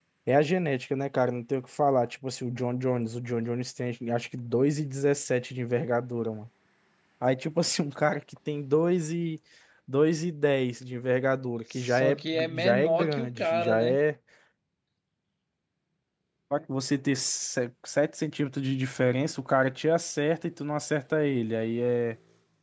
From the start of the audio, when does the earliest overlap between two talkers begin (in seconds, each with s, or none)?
11.7 s